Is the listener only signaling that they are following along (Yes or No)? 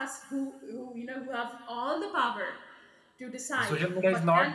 No